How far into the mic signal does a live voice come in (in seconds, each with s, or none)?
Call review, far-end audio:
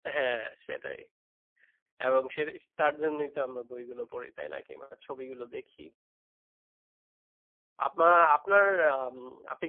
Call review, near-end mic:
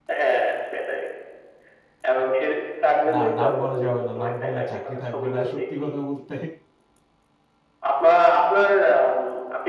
3.1 s